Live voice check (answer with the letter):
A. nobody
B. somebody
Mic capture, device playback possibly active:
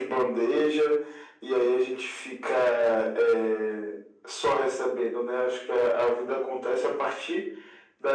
A